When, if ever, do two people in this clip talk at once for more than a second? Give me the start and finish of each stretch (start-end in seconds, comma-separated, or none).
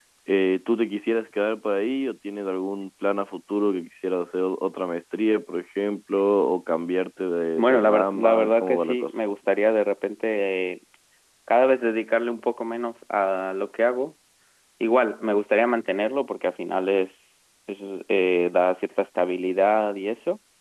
7.6-9.2